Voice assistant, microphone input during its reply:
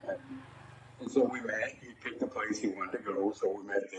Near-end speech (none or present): none